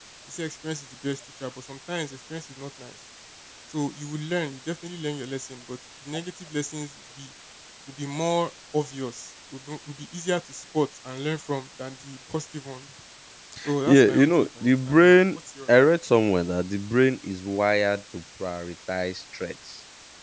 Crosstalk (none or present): present